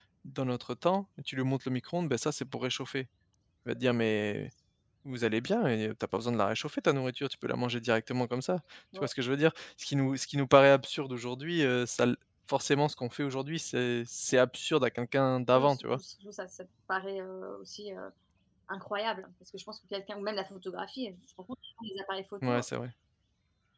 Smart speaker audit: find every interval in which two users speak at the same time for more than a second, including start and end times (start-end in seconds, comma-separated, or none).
none